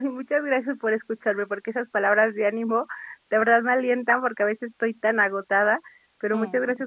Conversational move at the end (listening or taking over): listening